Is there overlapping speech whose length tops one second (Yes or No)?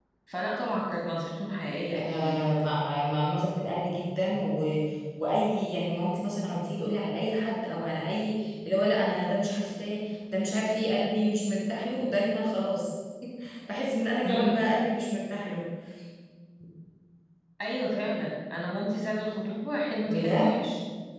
No